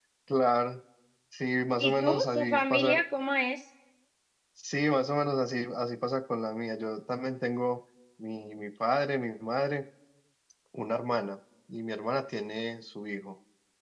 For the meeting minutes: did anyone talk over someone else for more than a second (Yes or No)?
Yes